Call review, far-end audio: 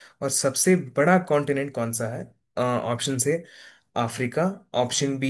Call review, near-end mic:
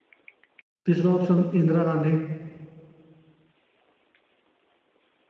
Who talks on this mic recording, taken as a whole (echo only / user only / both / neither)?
user only